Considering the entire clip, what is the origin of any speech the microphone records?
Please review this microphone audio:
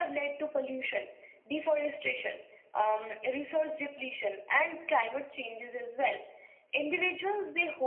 echo only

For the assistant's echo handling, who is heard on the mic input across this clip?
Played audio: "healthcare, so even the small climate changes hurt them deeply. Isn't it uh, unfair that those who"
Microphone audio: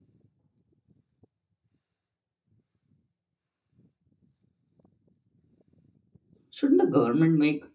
user only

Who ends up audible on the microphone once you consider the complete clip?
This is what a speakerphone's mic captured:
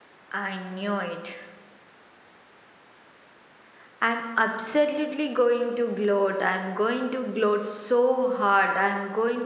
user only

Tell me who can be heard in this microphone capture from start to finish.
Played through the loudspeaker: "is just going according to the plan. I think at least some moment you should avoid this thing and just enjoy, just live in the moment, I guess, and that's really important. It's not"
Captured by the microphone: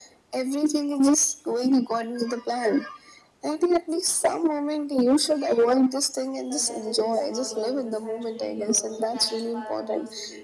both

